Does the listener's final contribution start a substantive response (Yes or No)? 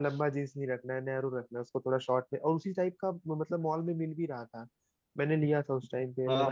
Yes